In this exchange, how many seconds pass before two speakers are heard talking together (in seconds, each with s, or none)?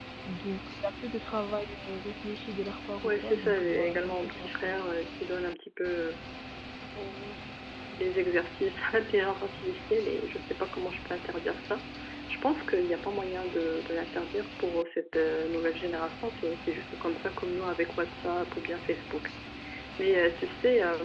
3.0 s